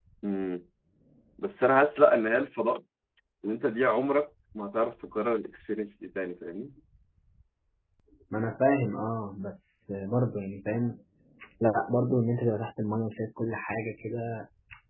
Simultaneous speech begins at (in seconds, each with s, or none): none